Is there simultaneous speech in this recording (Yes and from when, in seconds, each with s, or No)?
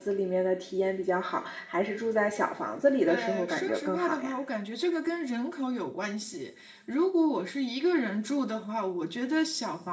Yes, from 3.1 s